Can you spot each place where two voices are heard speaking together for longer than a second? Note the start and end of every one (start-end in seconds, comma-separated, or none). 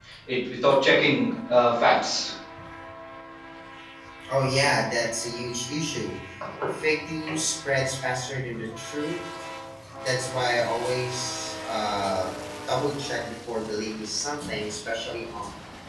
none